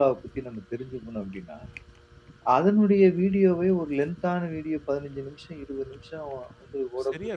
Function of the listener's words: taking over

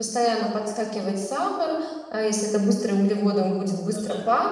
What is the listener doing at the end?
listening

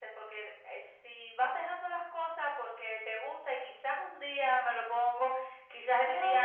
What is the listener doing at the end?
listening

